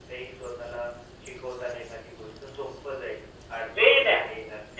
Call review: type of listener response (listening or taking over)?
taking over